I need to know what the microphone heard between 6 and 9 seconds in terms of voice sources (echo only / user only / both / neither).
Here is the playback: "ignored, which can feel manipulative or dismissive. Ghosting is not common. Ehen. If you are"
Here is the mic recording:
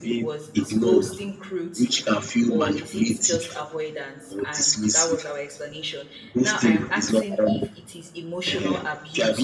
both